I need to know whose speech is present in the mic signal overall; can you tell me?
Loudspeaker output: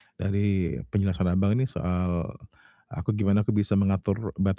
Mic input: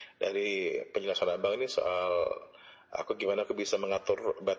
echo only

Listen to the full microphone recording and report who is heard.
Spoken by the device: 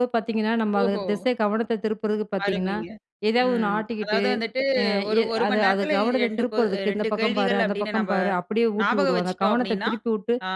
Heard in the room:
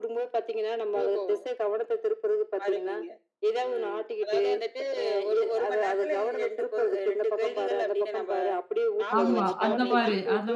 both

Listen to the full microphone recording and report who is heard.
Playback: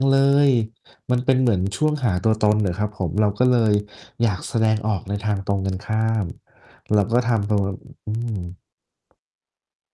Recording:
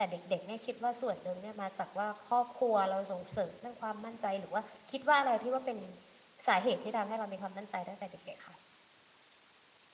user only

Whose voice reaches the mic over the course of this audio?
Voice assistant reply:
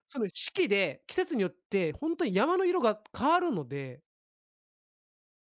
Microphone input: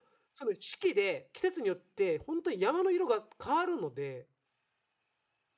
echo only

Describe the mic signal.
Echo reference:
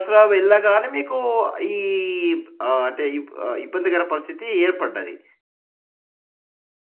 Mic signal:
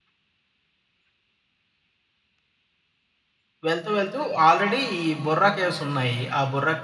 user only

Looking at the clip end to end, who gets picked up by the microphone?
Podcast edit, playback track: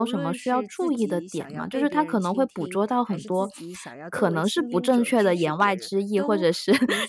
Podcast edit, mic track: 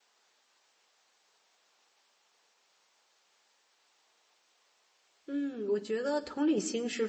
user only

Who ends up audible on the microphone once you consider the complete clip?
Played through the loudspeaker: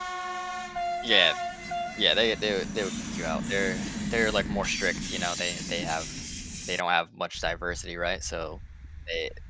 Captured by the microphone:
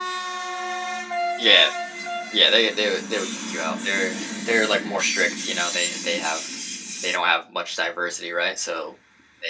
echo only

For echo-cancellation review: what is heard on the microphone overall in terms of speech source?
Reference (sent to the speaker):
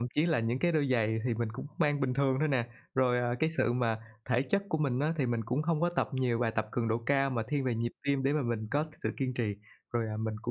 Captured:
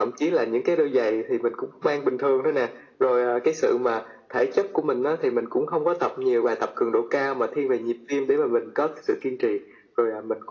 echo only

